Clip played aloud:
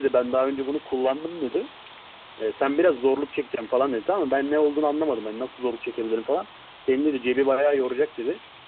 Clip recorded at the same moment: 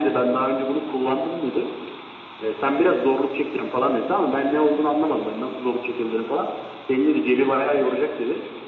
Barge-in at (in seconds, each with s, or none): none